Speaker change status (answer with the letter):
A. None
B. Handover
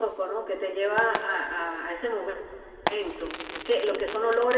A